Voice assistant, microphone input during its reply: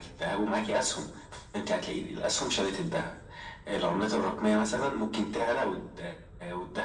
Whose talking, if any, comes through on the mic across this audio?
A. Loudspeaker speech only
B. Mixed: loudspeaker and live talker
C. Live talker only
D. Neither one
A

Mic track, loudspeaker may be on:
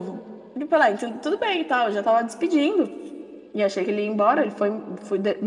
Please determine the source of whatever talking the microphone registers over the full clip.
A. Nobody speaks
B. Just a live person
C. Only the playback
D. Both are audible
C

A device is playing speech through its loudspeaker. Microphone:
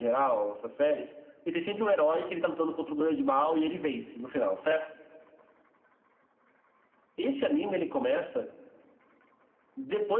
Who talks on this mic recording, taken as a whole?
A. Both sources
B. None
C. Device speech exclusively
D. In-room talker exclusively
C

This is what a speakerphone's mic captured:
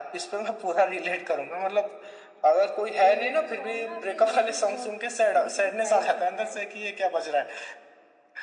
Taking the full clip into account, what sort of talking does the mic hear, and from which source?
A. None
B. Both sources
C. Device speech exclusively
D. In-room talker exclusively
B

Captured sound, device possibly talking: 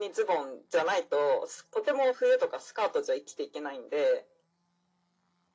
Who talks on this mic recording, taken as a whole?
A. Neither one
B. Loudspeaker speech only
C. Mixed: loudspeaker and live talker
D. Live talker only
B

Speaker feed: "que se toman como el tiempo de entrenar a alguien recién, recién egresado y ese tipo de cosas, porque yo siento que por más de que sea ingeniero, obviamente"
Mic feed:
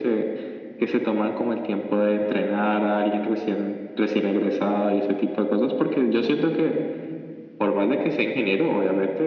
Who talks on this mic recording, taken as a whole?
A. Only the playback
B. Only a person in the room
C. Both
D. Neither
A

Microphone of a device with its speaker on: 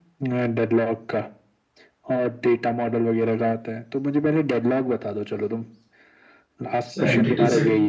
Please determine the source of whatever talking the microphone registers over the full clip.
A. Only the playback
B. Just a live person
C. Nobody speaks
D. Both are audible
D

